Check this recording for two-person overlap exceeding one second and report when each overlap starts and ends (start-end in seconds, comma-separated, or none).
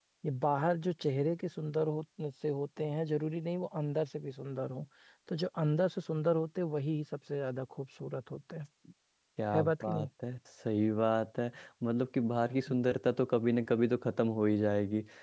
none